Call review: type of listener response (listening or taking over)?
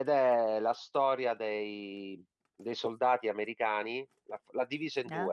listening